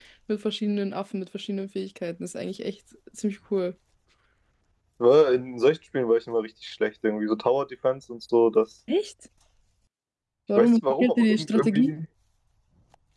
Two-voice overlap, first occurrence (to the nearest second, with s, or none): 11 s